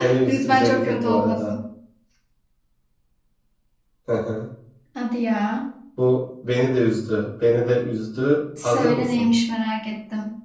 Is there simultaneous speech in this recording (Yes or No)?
Yes